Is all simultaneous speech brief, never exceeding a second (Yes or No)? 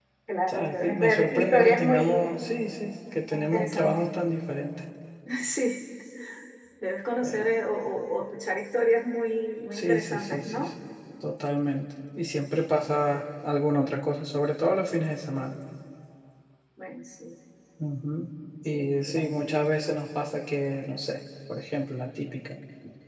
No